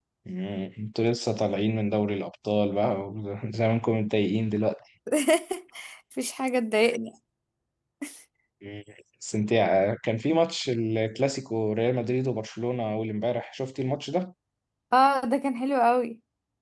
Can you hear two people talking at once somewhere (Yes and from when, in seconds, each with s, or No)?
No